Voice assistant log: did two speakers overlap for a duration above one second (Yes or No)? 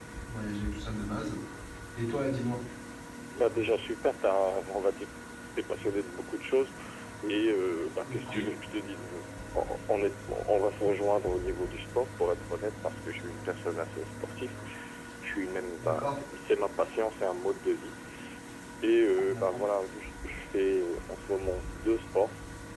No